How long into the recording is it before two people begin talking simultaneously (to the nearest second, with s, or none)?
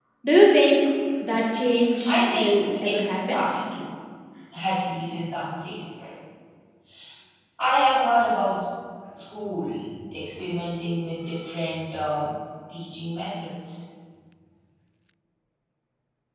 2 s